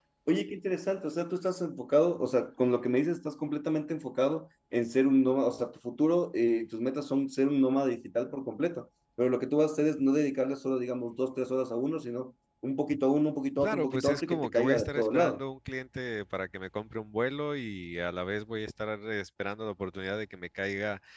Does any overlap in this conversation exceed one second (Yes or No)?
Yes